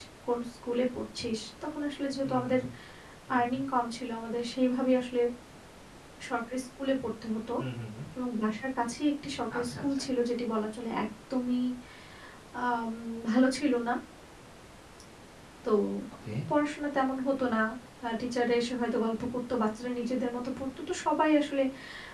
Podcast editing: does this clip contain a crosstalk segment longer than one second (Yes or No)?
No